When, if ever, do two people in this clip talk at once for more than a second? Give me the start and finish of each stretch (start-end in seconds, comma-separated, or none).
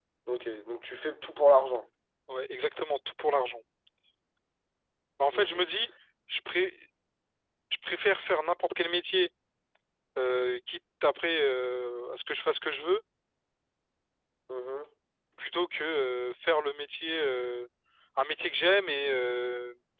none